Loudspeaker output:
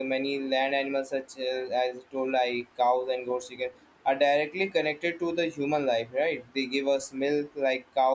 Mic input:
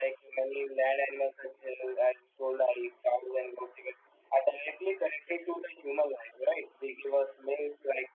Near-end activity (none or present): none